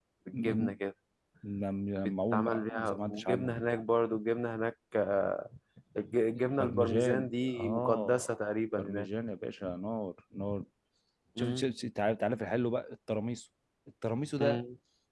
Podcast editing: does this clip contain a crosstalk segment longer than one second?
Yes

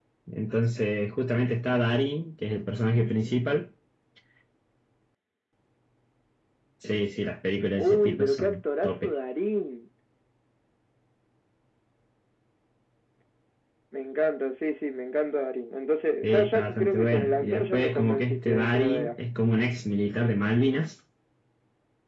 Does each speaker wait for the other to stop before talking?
No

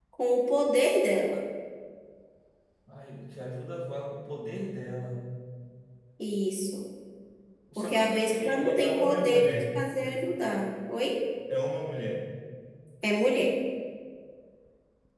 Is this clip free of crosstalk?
No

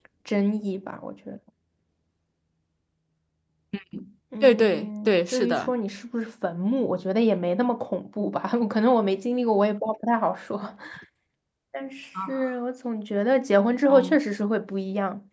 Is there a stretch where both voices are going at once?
Yes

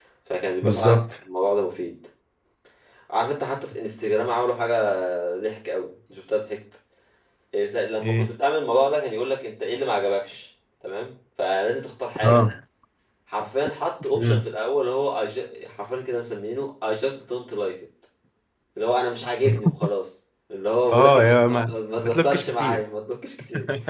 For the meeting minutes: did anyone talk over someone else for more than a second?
Yes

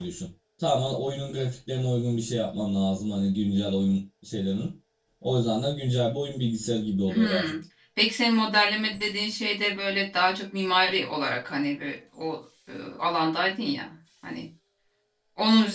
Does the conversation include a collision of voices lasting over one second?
No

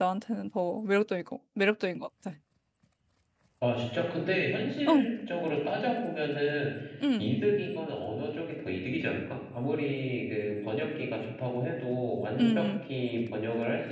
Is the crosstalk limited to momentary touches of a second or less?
Yes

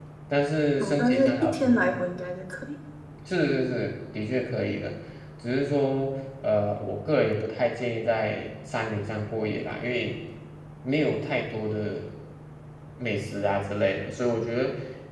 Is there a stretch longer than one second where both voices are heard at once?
Yes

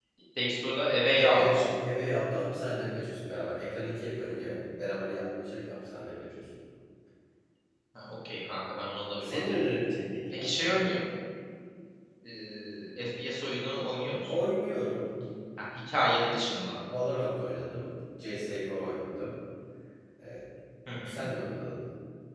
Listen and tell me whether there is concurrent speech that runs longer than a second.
No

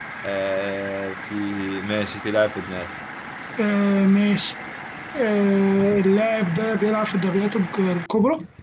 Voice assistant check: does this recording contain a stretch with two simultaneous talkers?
No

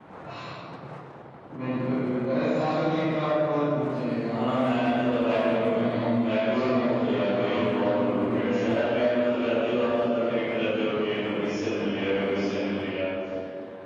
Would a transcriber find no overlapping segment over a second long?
No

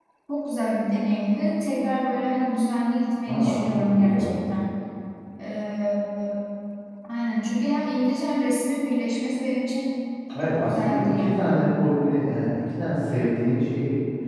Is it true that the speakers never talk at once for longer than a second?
No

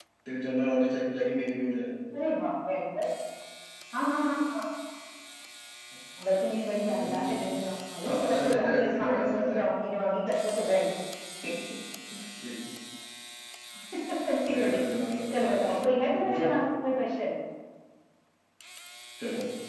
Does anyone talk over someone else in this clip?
Yes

